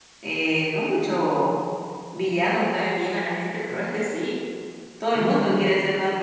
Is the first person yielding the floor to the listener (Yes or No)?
Yes